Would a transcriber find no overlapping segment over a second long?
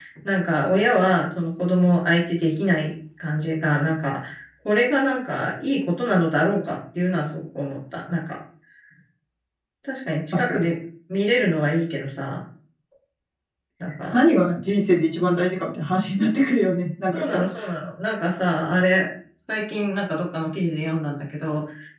Yes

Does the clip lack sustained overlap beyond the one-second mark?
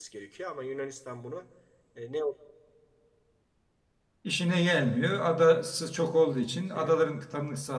Yes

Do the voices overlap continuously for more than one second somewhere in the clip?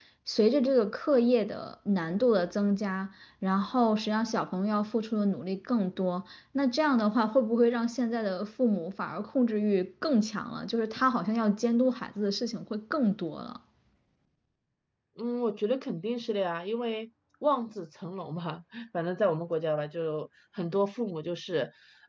No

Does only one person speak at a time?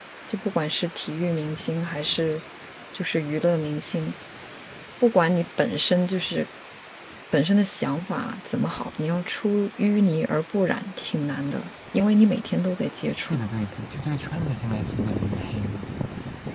Yes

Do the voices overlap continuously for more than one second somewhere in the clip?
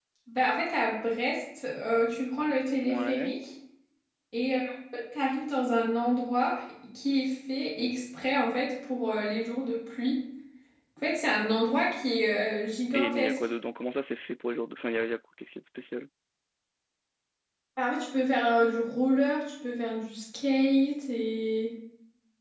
No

